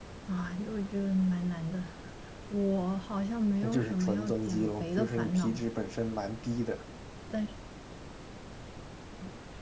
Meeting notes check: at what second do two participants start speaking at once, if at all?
3.6 s

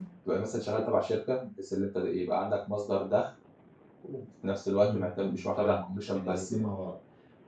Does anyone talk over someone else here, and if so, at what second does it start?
4.8 s

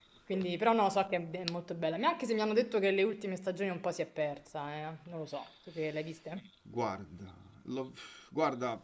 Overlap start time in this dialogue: none

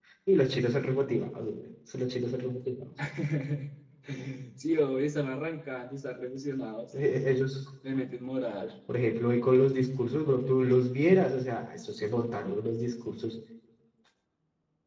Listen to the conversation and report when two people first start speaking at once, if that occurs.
none

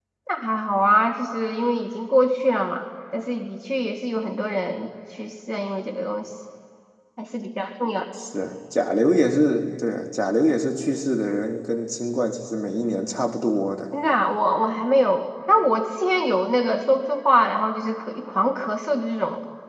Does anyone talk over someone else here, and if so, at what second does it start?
none

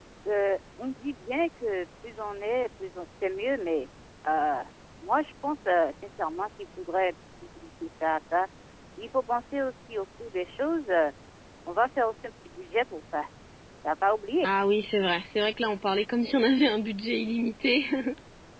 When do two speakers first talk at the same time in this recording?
none

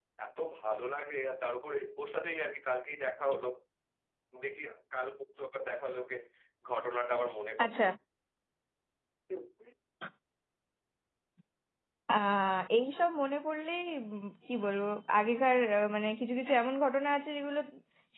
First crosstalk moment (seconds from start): none

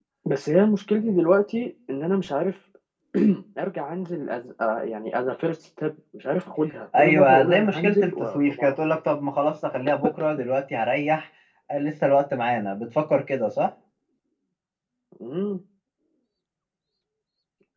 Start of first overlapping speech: 6.9 s

